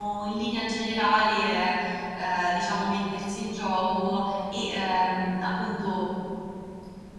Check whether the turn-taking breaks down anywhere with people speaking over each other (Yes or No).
No